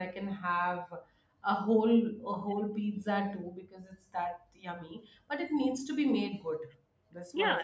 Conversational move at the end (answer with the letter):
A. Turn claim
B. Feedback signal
A